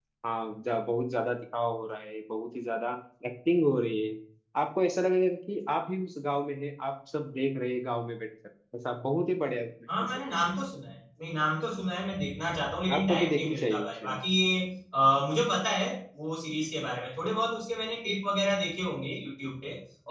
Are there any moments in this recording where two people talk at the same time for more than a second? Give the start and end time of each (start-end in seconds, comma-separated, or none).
12.9-14.2